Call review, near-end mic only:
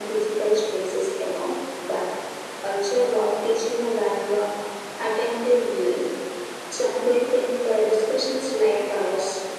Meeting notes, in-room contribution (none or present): none